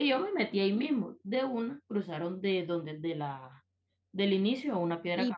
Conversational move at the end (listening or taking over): taking over